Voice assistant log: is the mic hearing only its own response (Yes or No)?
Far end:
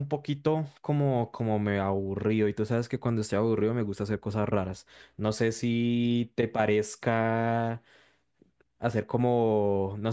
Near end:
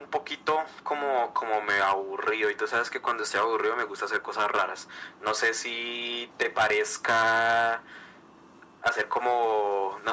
Yes